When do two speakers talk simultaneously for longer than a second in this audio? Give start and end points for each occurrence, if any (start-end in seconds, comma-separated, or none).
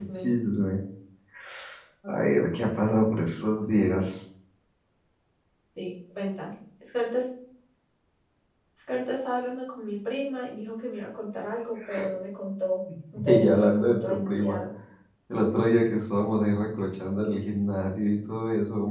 13.2-14.6